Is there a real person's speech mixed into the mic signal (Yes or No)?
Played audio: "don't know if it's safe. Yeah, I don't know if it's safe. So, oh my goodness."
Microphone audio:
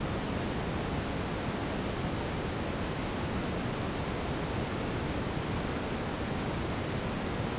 No